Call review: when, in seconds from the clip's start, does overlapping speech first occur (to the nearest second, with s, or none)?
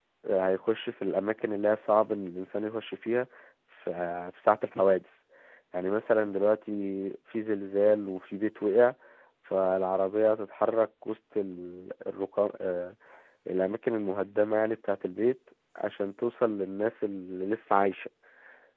none